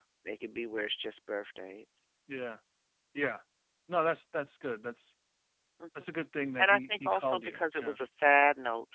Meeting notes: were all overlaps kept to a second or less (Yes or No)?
No